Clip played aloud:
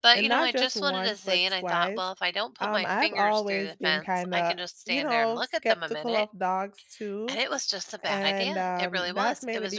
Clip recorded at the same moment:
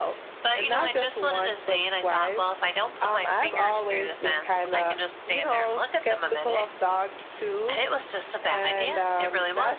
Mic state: echo only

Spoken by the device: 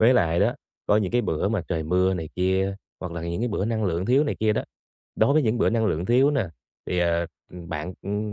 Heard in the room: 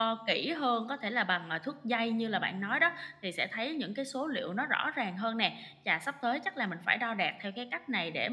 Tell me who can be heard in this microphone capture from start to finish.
user only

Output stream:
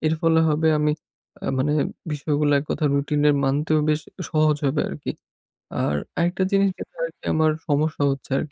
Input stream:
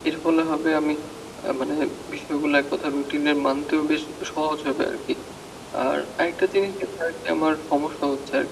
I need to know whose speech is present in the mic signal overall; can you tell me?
echo only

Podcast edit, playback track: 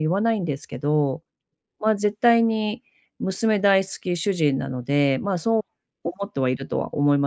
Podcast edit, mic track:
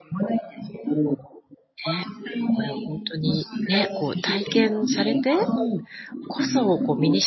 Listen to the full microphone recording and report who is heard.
both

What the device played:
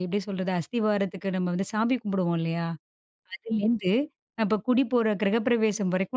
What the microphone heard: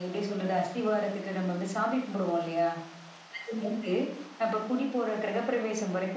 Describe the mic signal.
echo only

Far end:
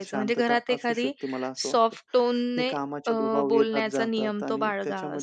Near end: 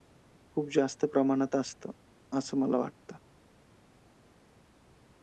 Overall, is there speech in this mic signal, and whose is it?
user only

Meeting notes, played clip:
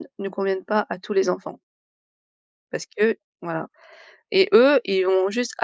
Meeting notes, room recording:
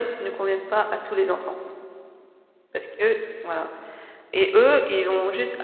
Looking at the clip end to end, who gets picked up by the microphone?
echo only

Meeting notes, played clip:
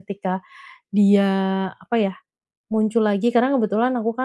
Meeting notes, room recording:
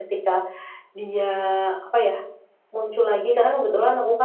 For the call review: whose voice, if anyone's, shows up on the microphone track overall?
echo only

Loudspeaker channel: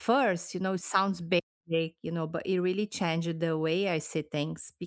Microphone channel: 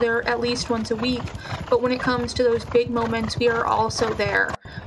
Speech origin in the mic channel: user only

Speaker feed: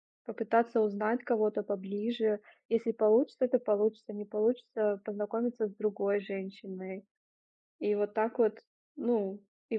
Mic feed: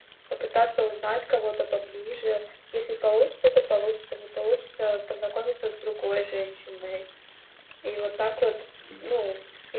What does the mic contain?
both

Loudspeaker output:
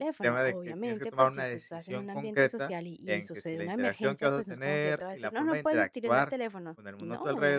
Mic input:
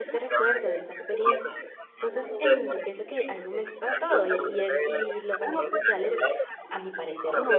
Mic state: both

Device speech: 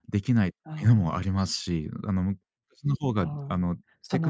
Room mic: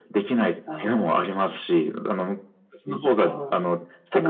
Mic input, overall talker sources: echo only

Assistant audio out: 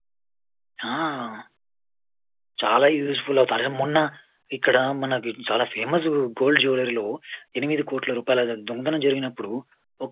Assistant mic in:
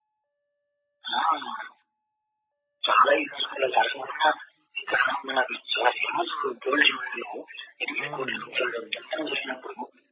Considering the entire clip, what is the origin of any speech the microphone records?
both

